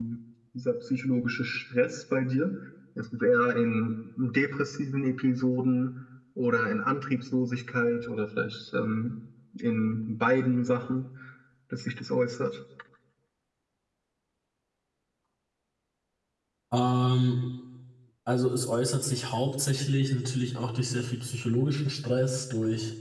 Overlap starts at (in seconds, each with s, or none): none